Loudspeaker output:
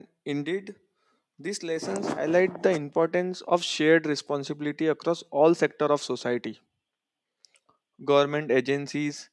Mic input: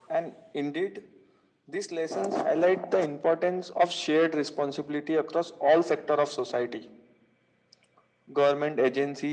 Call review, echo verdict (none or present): present